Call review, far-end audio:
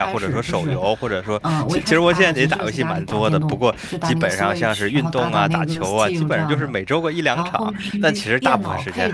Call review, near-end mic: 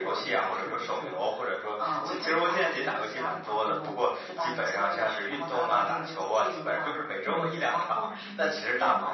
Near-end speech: present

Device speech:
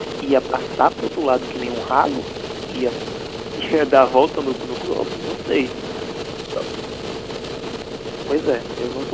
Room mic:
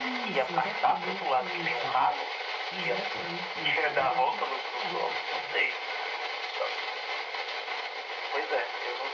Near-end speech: present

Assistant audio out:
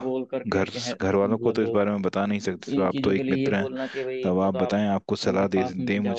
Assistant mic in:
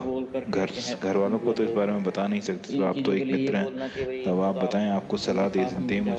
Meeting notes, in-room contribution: none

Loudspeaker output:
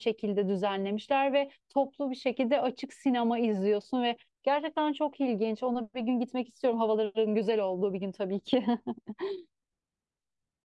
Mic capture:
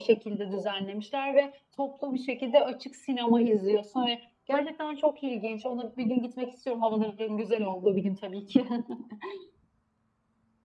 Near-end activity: none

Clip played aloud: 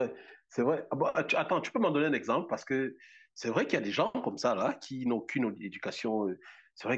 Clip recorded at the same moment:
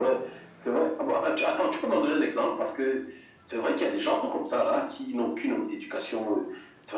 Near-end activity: none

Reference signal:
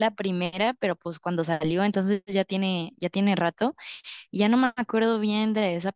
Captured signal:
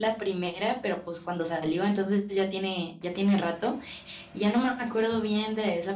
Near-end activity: none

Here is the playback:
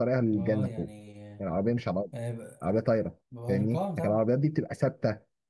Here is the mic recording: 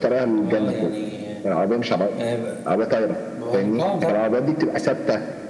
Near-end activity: none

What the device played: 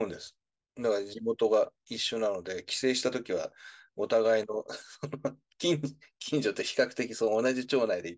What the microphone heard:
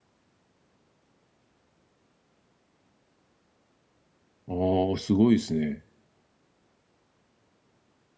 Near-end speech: present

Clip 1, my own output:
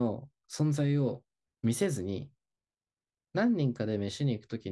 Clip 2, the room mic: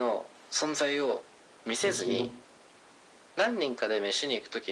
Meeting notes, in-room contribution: present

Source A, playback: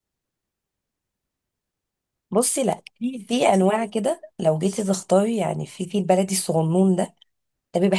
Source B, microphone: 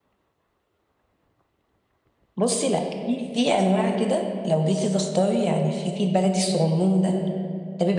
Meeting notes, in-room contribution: none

